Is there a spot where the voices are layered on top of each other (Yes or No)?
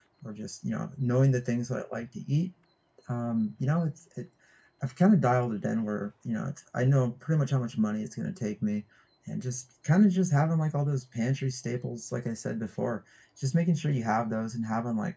No